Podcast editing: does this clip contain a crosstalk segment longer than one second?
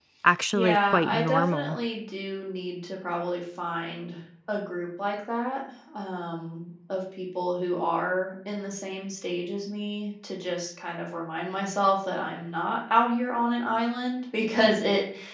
Yes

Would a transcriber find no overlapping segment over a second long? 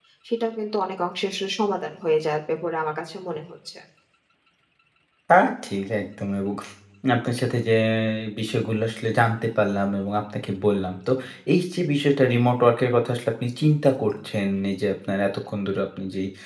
Yes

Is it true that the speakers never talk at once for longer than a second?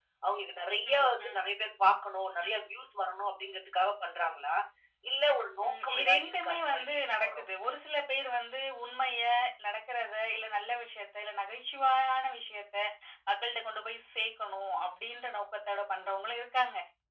No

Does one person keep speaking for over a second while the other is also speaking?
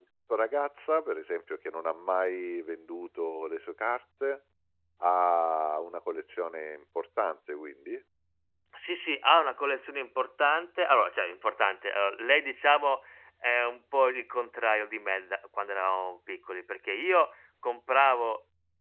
No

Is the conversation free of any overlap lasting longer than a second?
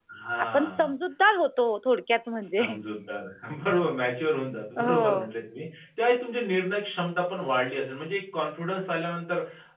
Yes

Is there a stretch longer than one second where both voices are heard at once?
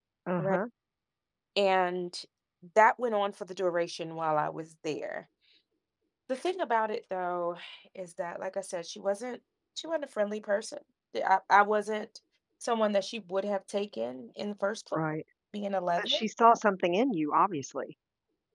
No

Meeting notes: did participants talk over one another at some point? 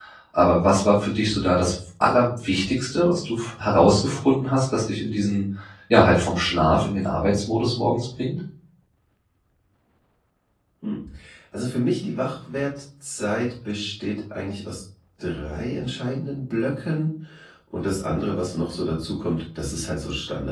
No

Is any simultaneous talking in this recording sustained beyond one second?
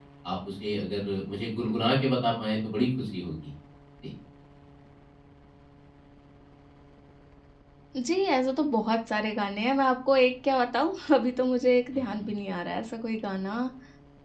No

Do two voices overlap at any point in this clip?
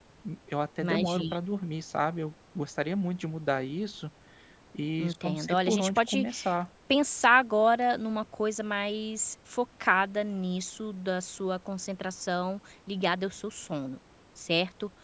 Yes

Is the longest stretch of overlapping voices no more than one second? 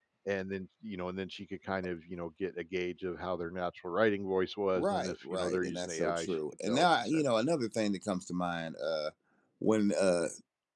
No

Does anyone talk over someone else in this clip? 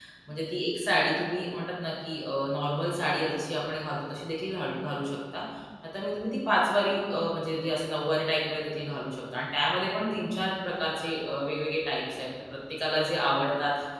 No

